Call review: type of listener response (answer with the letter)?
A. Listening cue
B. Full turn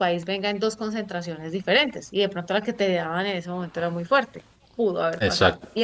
B